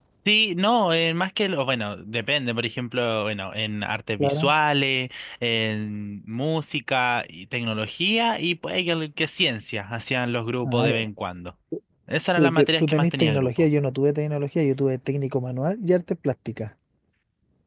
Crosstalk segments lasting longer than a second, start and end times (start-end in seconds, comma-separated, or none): 12.4-13.7